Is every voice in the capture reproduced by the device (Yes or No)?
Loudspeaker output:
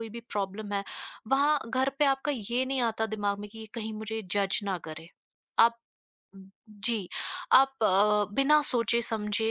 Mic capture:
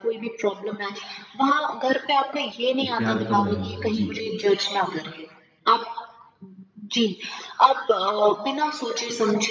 No